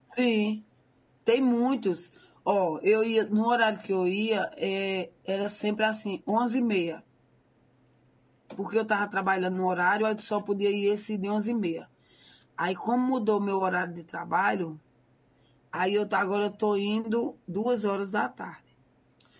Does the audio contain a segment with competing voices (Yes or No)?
No